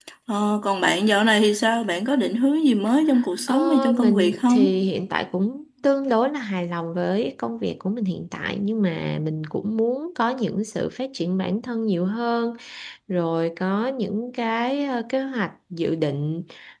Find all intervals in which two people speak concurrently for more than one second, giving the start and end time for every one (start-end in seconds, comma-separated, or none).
3.5-4.8